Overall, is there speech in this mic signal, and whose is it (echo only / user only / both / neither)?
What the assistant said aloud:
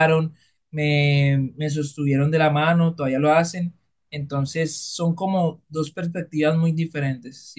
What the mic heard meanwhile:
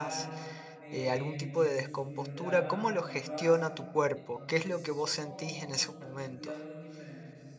both